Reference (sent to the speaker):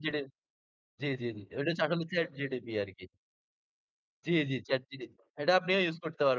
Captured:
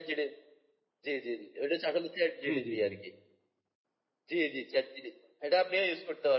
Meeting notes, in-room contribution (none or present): present